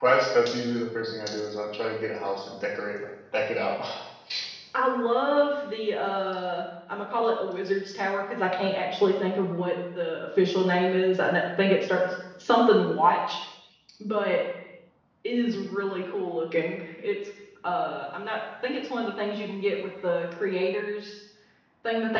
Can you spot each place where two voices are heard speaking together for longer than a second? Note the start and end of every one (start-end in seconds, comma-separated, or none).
none